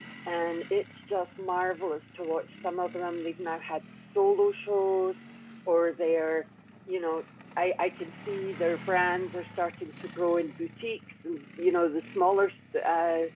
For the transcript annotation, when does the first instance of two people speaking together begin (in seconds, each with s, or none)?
none